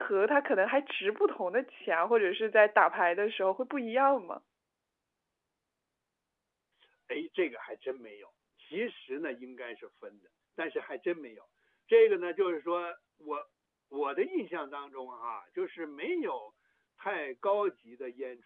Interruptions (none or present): none